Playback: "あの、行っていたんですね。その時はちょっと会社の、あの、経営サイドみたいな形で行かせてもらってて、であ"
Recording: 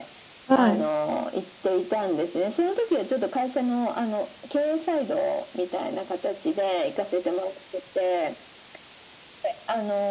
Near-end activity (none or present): present